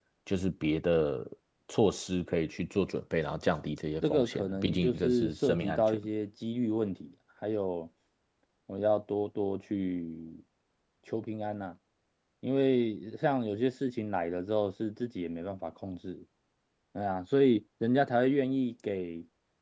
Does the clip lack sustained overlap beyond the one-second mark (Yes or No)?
No